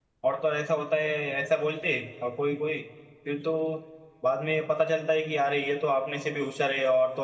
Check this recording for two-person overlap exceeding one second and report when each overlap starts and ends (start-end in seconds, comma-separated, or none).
none